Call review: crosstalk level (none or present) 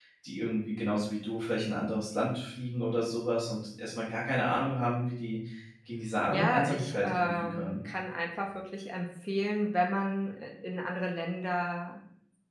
present